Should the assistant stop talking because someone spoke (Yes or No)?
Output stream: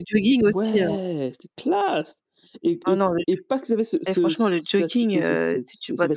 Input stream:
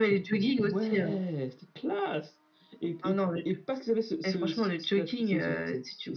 No